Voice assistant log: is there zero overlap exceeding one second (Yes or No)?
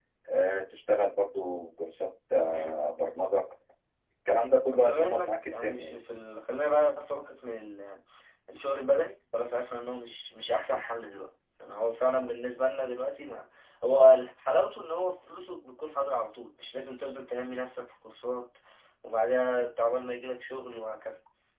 No